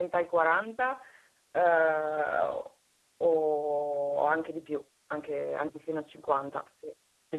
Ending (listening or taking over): taking over